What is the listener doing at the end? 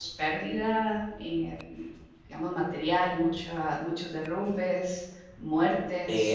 taking over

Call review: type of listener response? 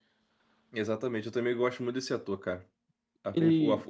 listening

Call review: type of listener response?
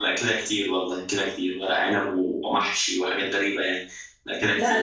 taking over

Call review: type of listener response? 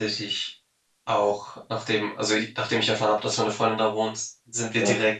listening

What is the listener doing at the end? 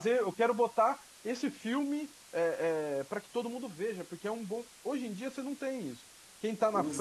taking over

